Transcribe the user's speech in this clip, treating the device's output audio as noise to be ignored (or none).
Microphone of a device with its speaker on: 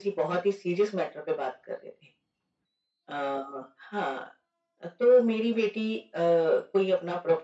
none